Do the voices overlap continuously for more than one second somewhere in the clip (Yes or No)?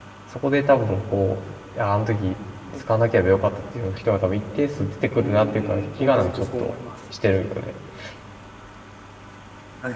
Yes